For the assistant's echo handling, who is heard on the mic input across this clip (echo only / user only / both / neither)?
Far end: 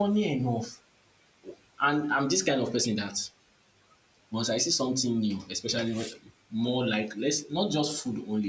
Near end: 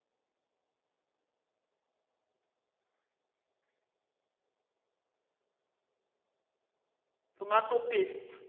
user only